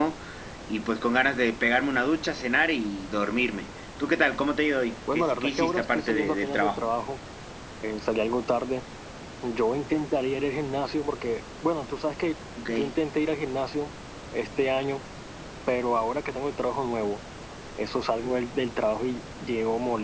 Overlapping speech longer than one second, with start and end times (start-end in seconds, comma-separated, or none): 5.1-6.8